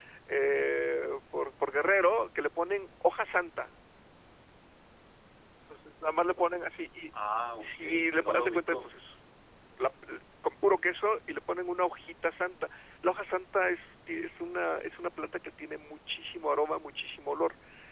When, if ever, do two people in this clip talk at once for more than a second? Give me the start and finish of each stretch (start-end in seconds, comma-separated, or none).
7.6-8.9